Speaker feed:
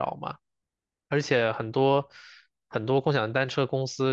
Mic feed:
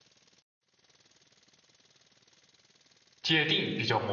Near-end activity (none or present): present